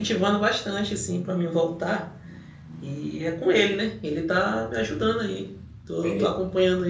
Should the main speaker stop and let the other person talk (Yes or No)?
No